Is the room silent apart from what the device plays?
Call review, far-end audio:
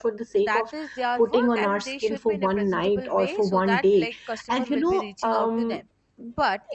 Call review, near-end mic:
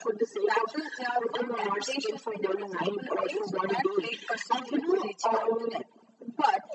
Yes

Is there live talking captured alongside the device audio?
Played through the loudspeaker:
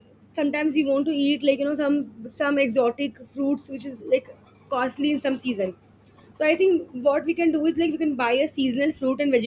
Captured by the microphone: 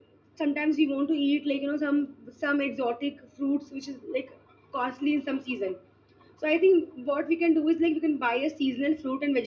No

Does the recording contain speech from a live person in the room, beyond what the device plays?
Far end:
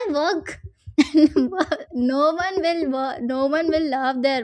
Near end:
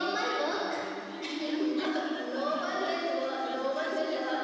Yes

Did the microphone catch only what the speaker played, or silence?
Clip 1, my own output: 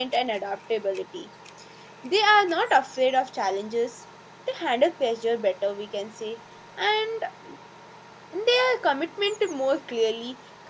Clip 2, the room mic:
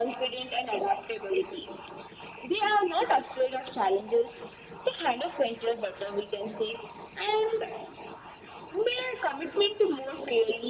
Yes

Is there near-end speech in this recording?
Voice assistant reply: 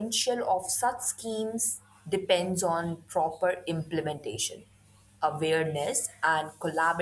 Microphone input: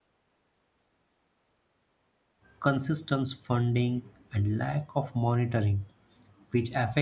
Yes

